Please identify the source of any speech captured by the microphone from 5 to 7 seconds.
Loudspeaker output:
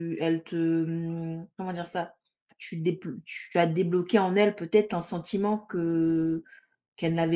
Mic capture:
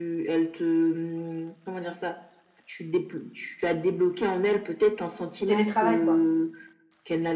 both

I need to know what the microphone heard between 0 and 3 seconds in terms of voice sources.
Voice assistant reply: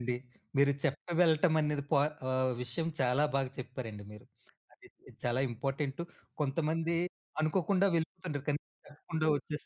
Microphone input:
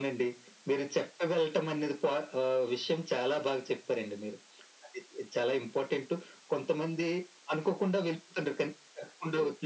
echo only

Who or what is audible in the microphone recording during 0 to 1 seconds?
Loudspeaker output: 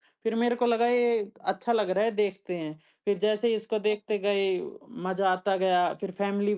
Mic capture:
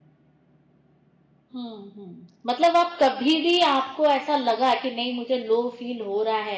neither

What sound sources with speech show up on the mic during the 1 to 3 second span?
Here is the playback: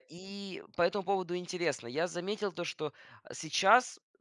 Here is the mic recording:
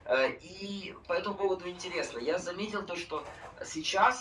echo only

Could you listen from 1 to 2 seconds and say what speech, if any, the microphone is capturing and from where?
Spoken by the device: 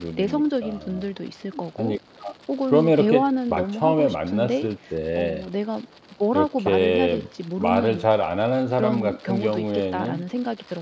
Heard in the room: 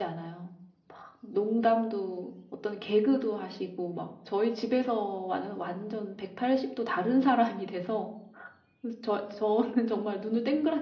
user only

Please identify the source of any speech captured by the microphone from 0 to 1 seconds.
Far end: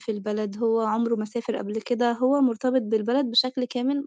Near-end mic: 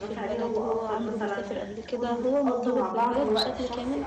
both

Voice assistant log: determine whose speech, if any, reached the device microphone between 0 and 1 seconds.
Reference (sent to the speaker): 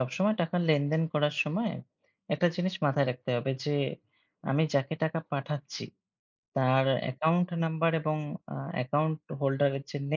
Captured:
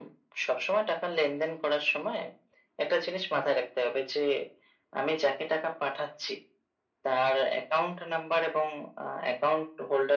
echo only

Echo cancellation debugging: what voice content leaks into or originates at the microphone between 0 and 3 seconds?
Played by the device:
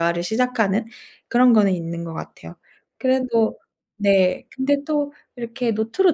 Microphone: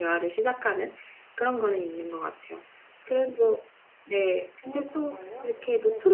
echo only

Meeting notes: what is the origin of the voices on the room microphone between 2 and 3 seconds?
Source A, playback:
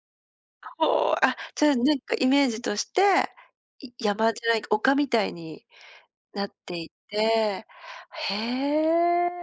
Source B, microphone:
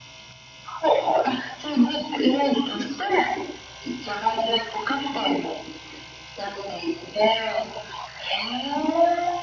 echo only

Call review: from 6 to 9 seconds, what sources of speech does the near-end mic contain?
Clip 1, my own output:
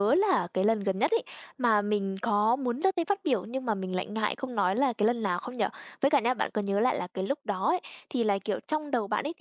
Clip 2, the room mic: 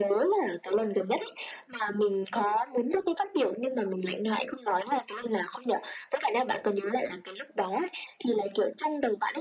echo only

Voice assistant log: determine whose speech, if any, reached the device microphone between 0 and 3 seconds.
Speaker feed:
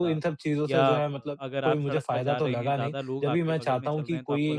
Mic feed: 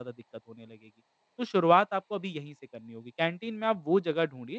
user only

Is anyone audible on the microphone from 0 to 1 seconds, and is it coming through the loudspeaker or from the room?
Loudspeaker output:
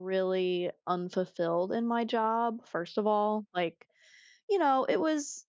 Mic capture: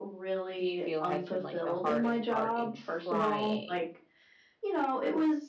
both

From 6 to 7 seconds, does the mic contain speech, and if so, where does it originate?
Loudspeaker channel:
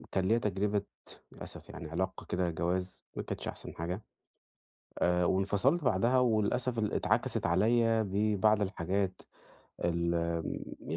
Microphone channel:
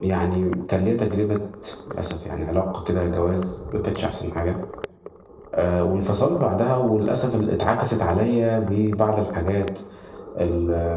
echo only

